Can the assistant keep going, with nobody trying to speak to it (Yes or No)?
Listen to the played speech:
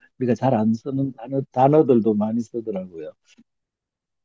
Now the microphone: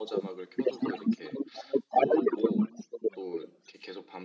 No